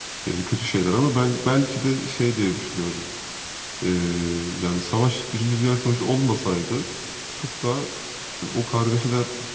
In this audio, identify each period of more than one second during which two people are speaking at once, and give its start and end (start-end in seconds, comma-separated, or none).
none